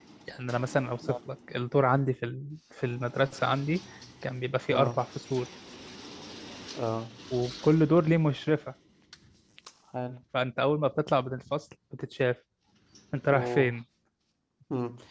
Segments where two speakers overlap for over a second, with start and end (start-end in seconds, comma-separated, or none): none